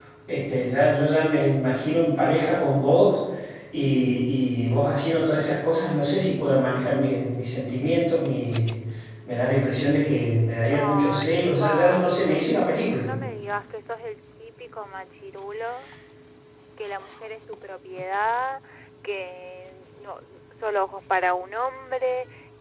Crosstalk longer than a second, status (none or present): present